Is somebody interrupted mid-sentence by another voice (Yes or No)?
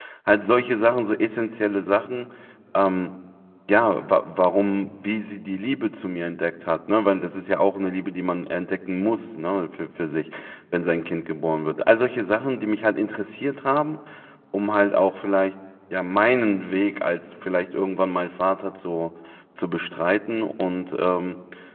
No